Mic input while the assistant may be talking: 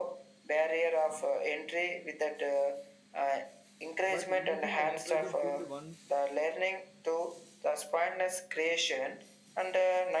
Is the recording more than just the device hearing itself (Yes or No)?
Yes